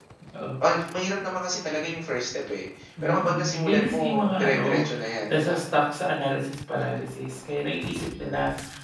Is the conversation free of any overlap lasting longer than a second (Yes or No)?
No